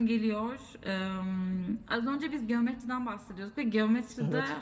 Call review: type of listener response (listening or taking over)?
listening